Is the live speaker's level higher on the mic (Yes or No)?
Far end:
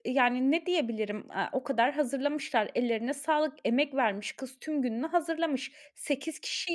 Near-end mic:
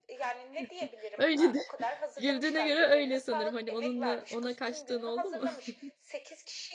Yes